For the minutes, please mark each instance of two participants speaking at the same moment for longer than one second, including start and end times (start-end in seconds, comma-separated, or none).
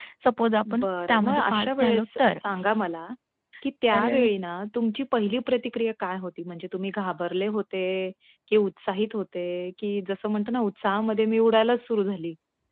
0.7-2.3